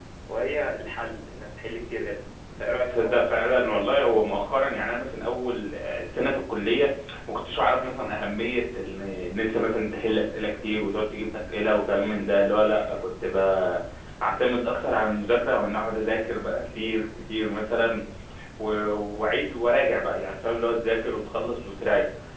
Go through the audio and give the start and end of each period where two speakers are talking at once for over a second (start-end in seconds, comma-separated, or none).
none